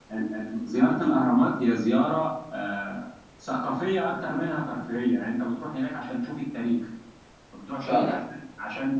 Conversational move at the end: listening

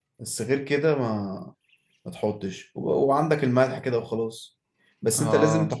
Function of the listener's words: listening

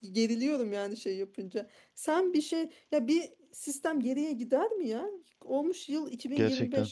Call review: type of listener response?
listening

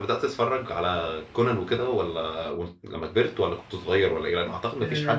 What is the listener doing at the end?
taking over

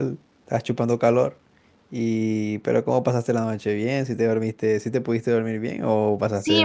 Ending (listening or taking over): taking over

